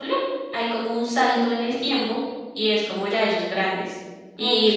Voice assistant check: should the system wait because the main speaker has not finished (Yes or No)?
Yes